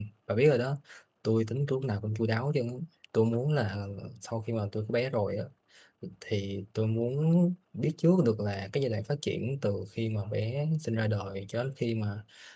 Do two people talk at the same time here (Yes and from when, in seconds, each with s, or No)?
No